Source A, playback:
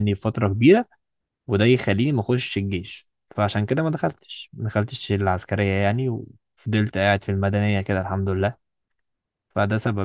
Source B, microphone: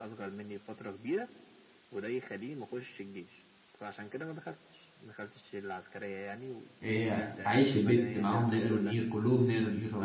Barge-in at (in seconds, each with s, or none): 6.8 s